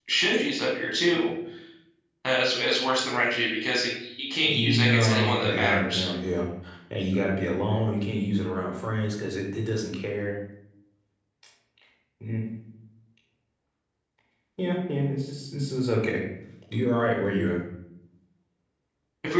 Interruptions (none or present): present